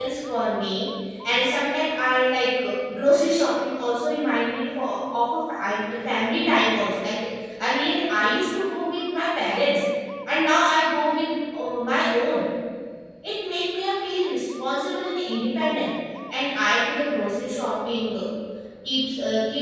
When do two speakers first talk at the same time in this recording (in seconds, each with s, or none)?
none